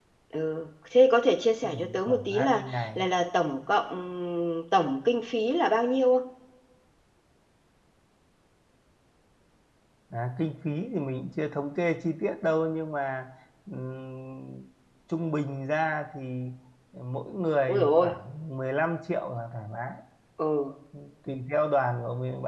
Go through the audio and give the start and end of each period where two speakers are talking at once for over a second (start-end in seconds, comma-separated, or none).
1.6-3.0